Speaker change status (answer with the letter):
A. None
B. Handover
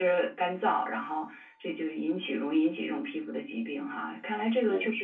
A